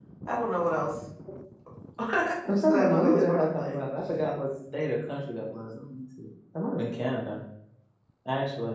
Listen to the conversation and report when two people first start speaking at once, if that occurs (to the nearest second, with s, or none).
2 s